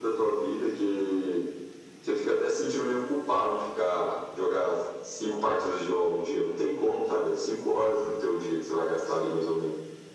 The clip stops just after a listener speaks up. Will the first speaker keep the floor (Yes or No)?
Yes